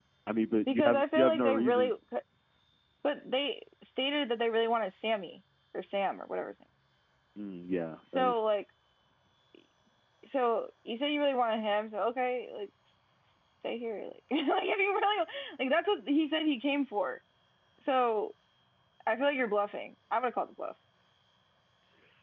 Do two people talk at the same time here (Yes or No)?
Yes